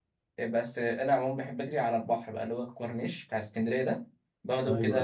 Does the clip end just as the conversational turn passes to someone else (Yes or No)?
No